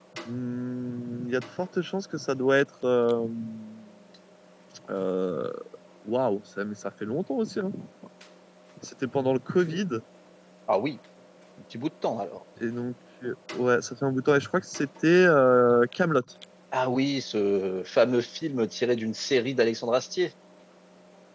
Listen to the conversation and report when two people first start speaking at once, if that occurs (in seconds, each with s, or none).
none